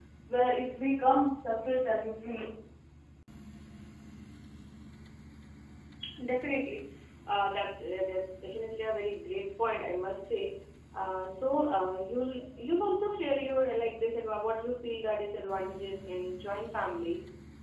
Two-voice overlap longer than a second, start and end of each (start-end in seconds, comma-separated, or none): none